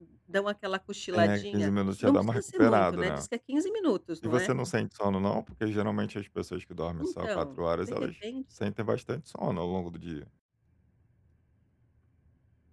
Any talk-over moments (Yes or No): Yes